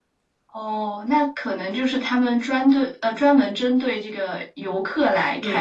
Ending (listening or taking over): taking over